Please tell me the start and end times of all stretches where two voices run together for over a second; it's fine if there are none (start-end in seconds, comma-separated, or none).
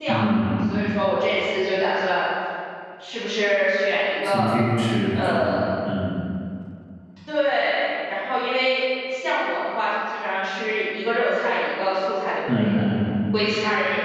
none